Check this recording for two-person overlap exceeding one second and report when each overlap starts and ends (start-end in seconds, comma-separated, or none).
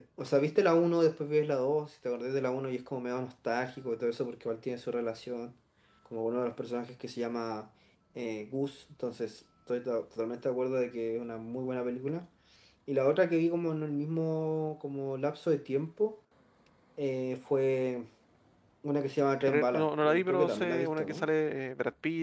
19.5-21.2